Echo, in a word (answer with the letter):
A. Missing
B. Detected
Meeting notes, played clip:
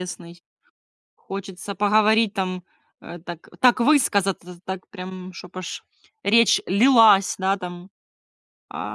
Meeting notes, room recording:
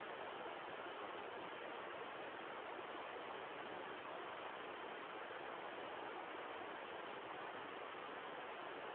A